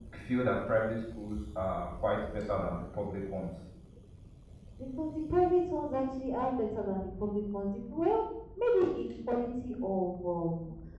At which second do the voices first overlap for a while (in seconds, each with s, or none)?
none